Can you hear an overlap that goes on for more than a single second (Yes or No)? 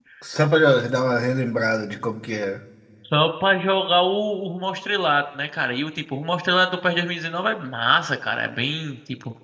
No